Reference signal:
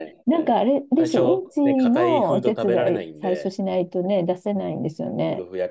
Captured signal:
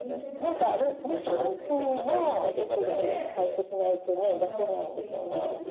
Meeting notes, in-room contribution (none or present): present